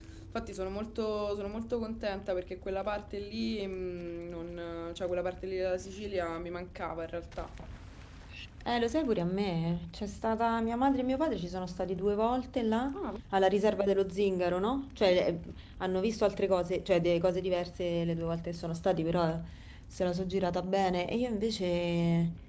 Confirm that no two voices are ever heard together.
Yes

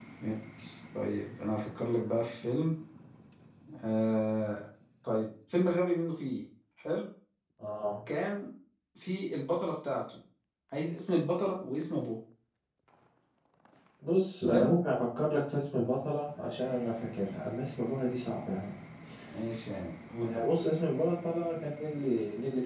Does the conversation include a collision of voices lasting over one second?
No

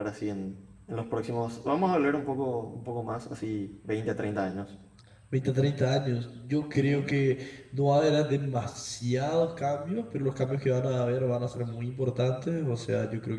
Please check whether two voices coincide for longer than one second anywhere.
No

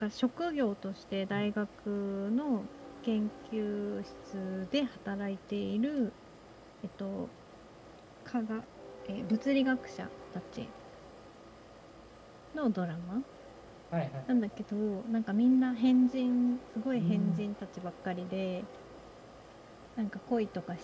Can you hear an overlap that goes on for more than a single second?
No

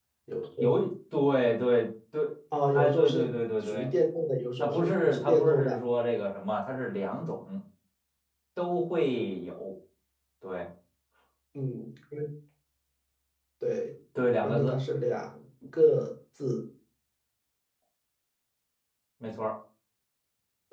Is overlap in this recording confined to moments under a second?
No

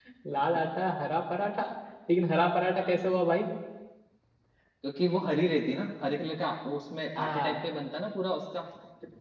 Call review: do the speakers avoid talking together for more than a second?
Yes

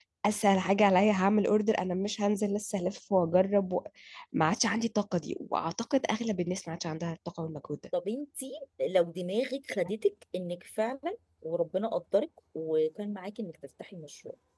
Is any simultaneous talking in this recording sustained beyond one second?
No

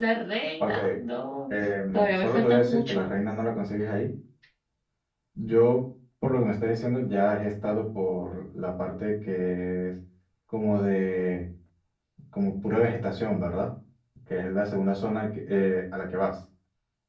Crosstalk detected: Yes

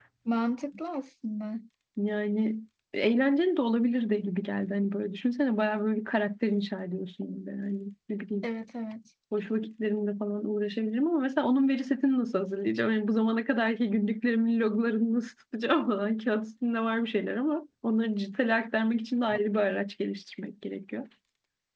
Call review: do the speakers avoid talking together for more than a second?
Yes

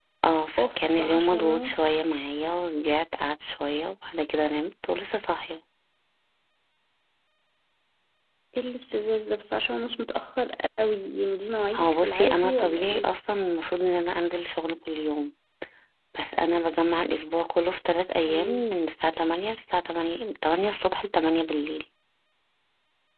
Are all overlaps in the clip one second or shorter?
No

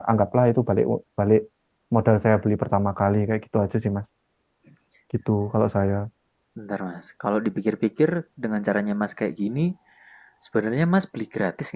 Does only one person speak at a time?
Yes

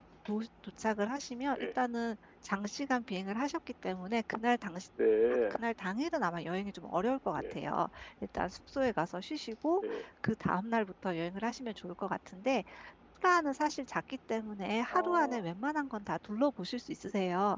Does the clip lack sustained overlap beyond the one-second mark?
Yes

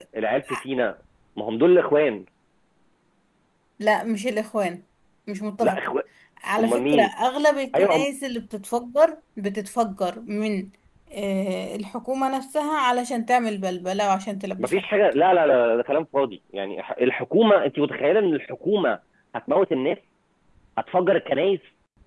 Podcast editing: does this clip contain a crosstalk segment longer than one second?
No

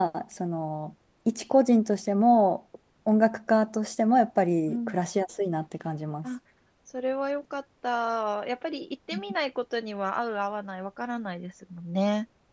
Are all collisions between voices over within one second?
Yes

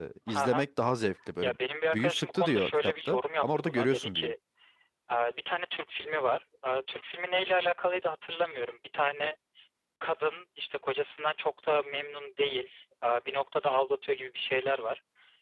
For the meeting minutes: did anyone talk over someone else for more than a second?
Yes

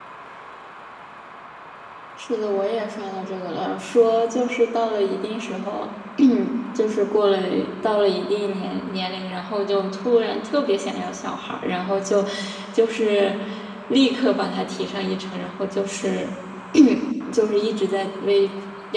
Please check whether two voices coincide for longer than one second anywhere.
No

